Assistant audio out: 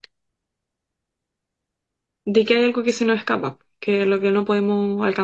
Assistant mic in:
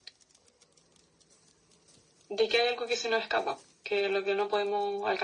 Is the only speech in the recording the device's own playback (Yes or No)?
Yes